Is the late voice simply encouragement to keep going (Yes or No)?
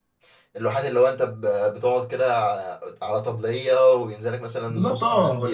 No